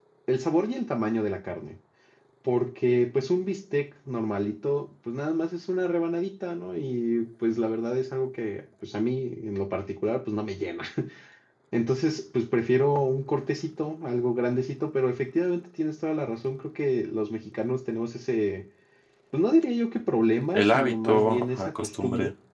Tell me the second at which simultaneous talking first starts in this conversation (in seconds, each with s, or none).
20.5 s